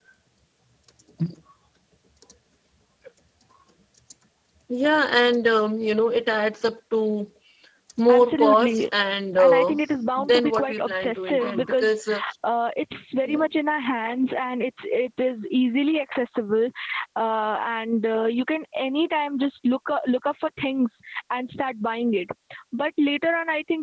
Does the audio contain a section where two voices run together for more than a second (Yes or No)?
Yes